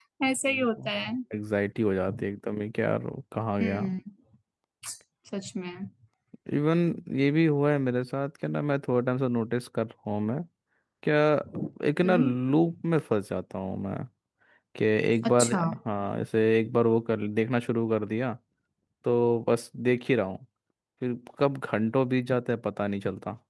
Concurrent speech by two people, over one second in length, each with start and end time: none

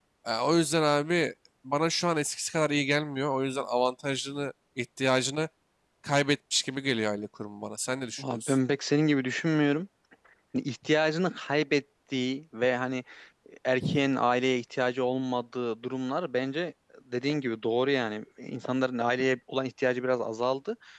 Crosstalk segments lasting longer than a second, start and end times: none

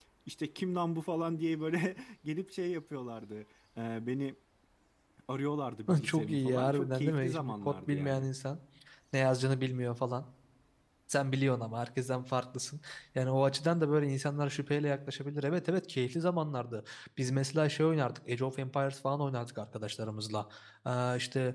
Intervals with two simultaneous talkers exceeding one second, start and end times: 6.0-8.2

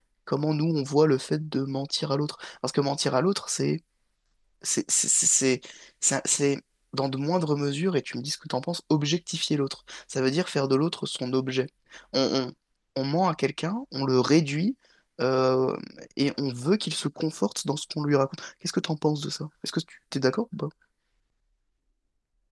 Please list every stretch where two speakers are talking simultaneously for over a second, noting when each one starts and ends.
none

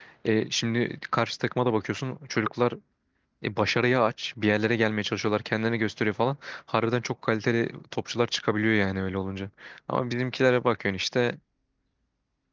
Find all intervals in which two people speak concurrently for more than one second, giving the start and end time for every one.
none

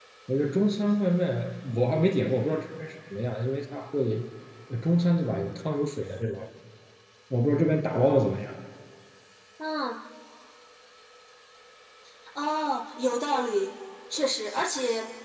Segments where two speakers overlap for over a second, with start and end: none

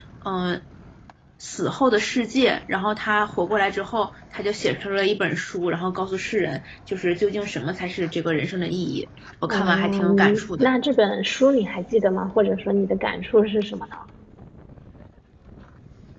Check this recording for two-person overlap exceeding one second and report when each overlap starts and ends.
9.4-10.7

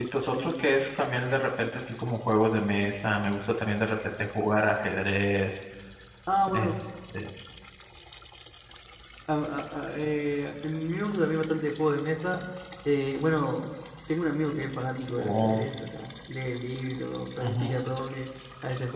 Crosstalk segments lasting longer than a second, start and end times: none

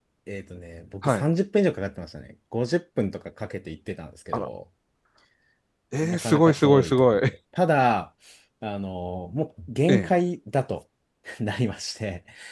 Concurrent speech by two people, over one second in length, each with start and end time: 6.0-7.3

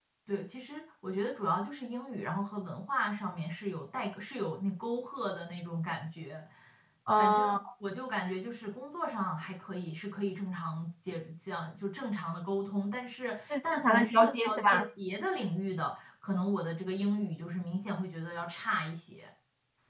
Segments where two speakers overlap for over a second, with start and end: 13.5-14.8

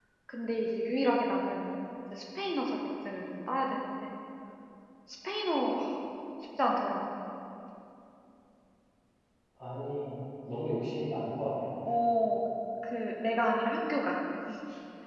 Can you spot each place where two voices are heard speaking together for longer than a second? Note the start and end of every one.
none

